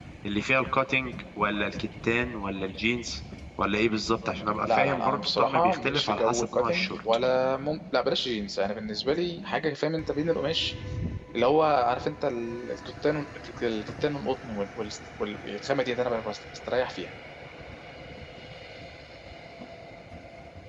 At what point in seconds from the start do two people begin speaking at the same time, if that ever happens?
4.6 s

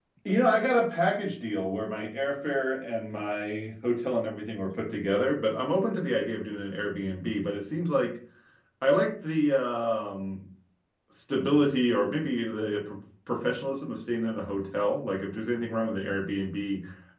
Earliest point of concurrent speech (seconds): none

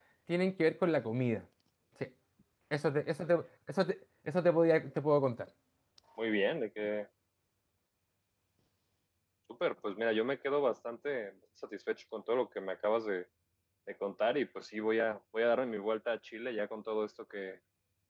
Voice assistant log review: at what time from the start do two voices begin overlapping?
none

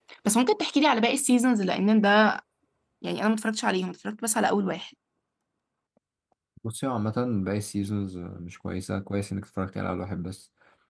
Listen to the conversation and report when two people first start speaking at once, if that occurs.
none

